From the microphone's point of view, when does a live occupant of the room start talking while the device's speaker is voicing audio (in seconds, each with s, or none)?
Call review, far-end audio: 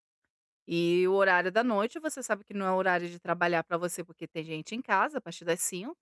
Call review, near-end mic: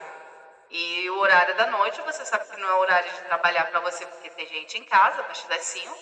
none